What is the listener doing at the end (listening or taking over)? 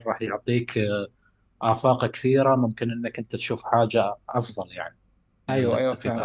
taking over